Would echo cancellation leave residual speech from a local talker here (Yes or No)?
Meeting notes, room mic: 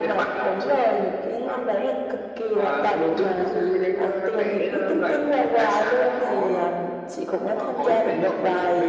No